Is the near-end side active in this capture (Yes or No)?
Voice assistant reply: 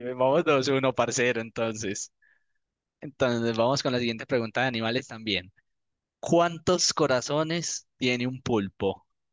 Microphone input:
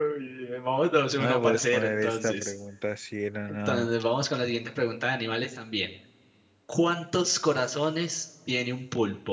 Yes